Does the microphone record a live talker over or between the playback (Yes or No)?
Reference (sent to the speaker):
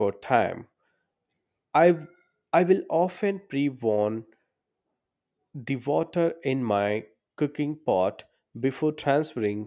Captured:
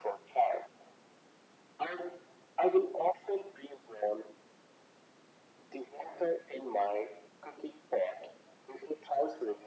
No